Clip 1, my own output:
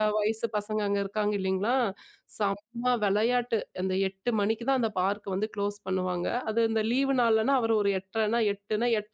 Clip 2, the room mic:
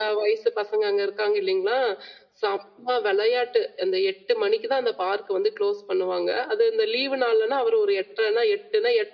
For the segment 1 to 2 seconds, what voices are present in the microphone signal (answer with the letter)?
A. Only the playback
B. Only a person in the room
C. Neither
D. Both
A